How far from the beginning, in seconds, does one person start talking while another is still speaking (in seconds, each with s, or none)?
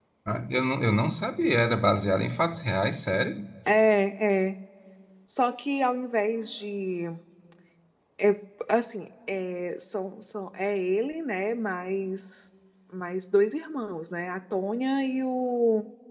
none